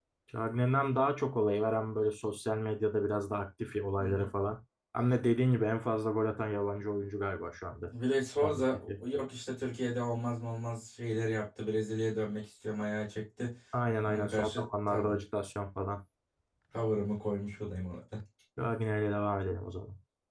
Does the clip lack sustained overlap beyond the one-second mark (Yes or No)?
No